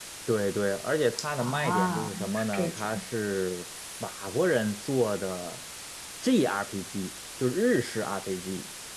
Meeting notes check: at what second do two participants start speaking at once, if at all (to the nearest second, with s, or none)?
1 s